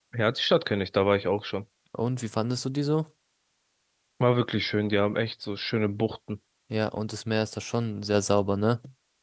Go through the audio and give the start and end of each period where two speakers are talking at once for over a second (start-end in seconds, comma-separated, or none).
none